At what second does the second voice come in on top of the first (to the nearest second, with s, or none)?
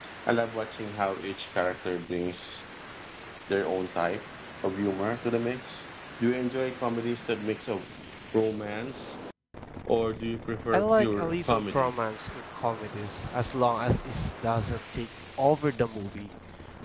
11 s